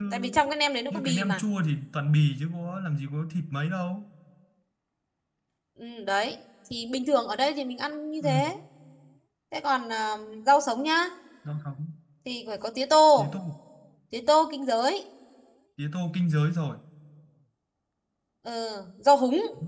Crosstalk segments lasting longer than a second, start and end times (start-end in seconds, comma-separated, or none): none